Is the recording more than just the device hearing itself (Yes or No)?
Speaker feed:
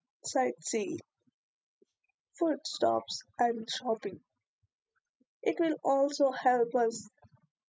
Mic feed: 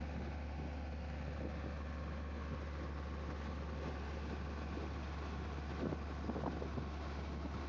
No